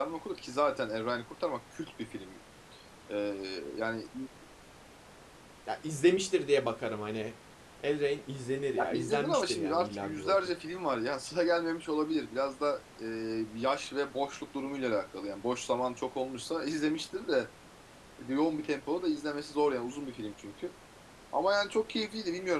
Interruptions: present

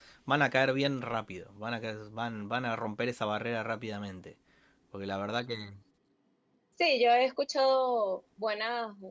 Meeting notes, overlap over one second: none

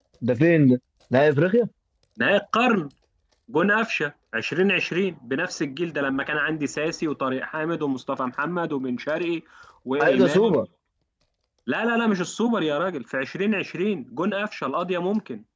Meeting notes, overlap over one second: none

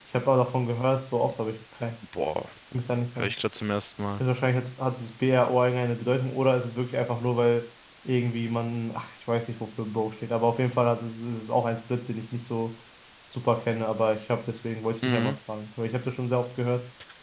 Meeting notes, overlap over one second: none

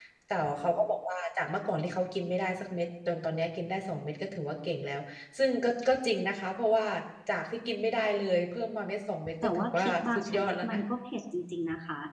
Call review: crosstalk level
present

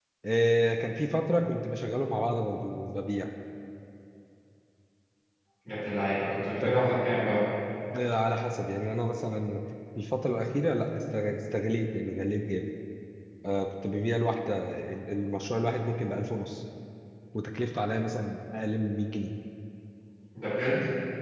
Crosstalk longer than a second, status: none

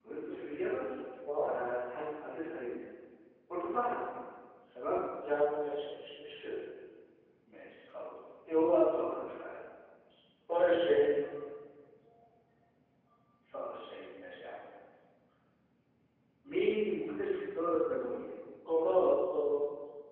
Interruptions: none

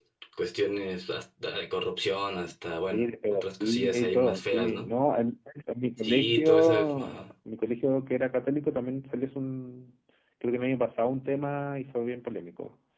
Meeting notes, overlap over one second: present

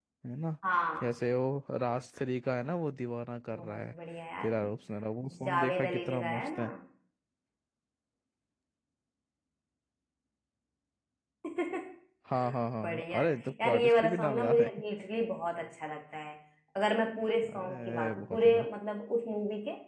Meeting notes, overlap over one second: present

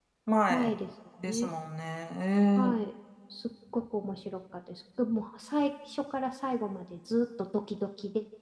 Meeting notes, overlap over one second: none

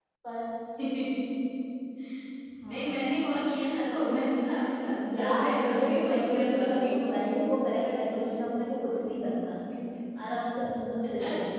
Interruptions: present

